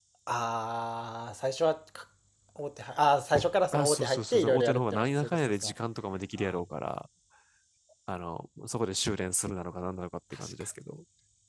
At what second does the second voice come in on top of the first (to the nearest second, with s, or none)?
4 s